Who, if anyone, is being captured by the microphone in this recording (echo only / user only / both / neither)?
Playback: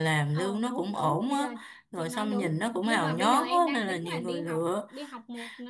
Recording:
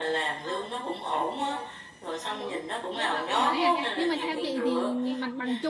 both